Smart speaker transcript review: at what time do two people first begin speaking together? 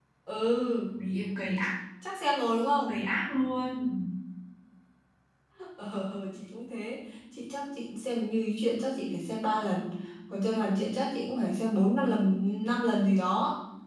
none

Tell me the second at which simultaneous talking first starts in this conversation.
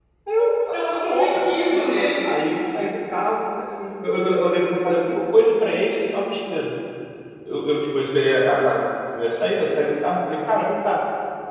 0.7 s

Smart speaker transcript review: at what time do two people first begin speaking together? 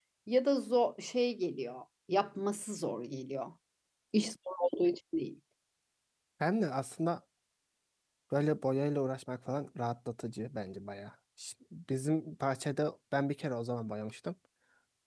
none

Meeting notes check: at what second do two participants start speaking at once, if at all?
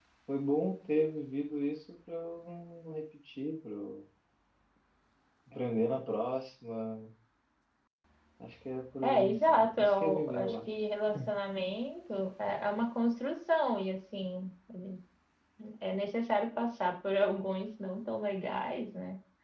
9.0 s

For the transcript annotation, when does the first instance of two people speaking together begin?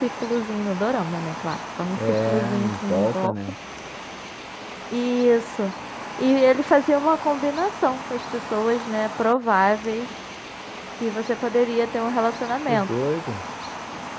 2.0 s

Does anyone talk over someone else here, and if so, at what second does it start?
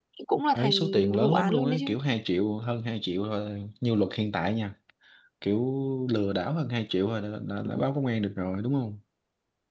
0.5 s

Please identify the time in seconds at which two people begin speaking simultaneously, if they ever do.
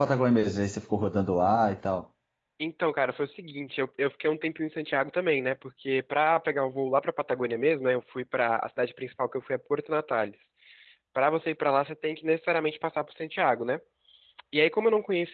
none

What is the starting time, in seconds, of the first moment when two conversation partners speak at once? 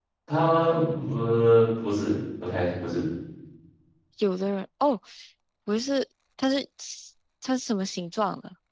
none

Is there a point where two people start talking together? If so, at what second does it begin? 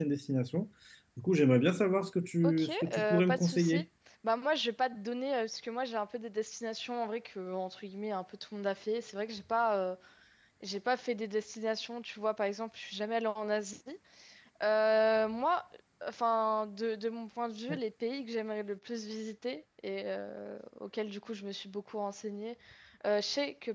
2.4 s

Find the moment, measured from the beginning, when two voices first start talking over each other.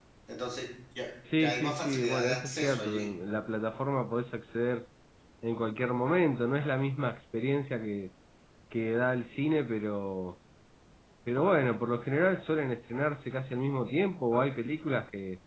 1.2 s

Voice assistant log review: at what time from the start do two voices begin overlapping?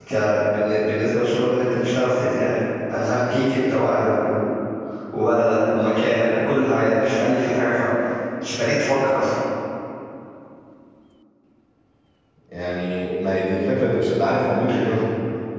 none

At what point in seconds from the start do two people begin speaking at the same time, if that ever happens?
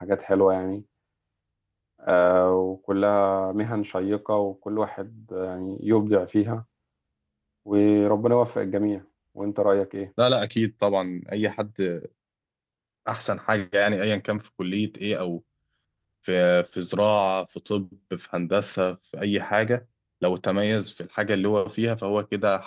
none

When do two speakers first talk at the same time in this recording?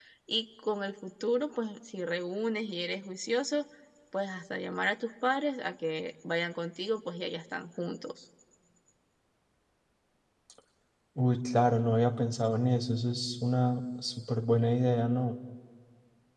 none

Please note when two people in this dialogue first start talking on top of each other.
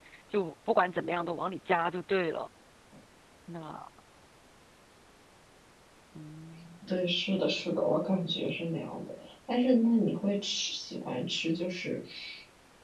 none

